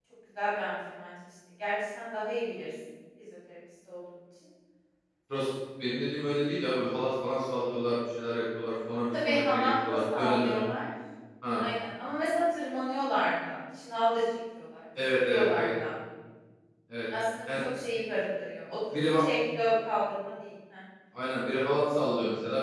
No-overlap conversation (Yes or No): No